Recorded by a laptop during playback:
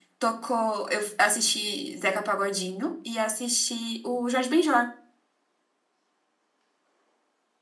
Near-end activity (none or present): none